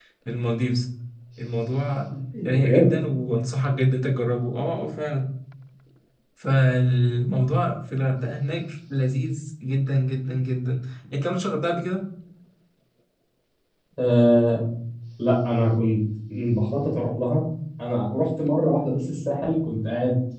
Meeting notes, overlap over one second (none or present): none